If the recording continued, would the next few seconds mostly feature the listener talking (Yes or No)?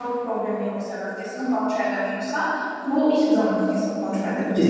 Yes